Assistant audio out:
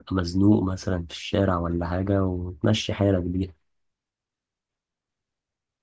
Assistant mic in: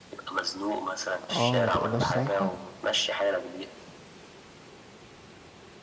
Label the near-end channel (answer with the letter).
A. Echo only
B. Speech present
B